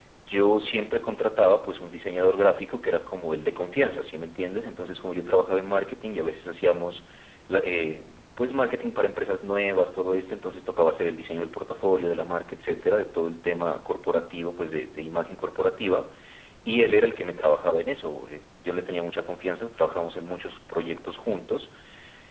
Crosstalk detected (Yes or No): No